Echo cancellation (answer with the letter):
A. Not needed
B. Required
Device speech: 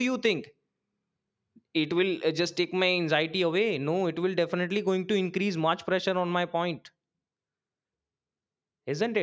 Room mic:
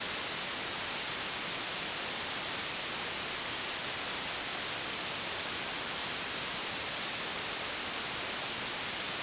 A